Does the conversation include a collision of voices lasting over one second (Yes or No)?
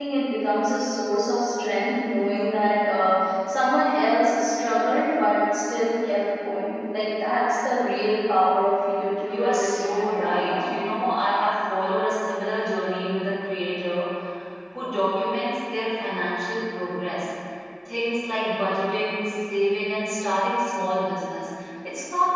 Yes